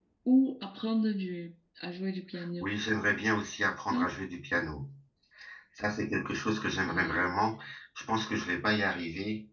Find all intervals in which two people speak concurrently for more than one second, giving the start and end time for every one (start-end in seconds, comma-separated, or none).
none